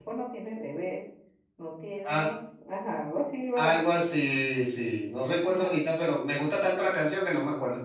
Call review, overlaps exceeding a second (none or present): none